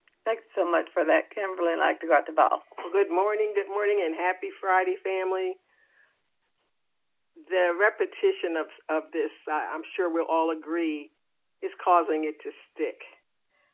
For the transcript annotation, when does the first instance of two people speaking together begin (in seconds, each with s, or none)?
none